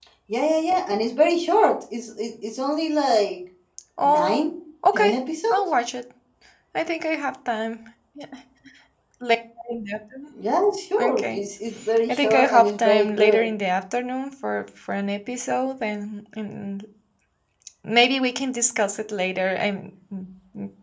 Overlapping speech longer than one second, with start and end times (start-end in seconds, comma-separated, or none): 12.1-13.5